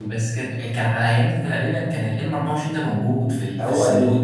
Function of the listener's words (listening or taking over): taking over